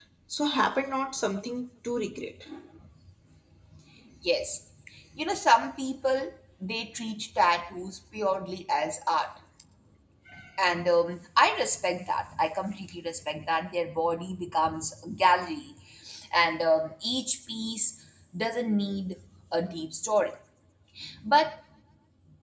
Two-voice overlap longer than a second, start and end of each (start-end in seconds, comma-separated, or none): none